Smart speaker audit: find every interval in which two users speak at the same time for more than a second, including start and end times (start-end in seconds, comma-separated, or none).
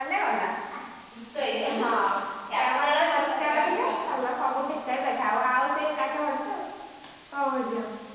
2.6-4.1